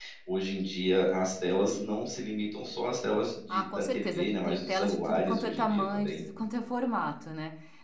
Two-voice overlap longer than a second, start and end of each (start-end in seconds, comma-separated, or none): 3.5-6.2